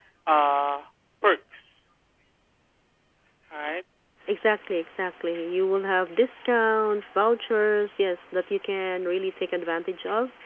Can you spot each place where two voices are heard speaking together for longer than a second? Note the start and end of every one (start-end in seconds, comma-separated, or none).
none